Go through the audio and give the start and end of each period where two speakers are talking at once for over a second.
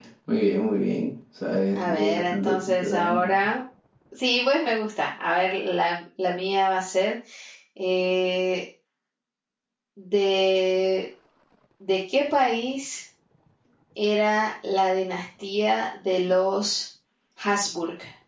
1.8-3.3

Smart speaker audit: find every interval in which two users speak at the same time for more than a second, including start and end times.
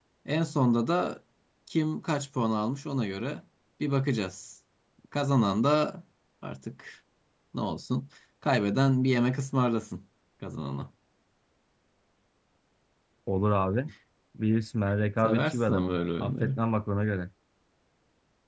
15.2-16.6

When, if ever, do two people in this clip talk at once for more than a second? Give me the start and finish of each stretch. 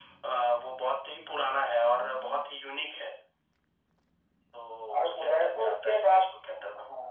5.0-6.3

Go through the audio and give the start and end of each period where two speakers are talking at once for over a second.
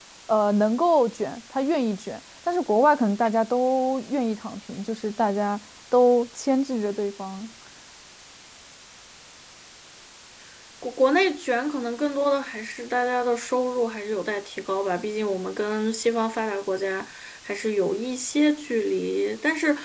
none

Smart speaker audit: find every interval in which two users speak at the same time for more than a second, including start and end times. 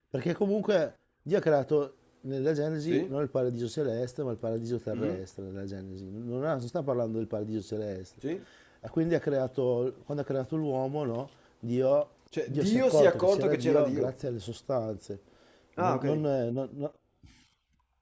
12.5-14.1

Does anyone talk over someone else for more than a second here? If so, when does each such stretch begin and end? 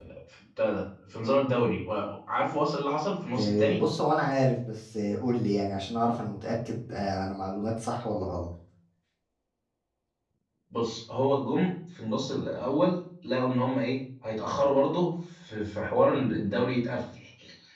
none

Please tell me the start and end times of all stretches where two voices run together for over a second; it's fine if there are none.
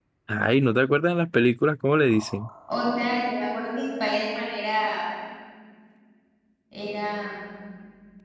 none

